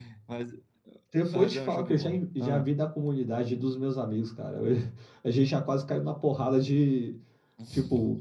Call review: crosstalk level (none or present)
present